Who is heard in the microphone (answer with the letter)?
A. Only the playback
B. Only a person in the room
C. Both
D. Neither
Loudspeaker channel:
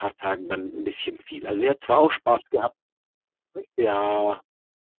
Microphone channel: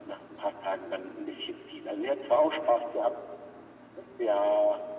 A